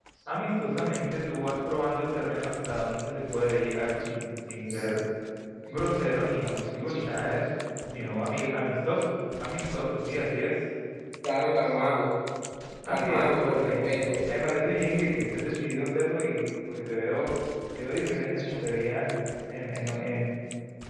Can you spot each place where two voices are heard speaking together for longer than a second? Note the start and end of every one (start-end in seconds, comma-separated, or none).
12.9-14.1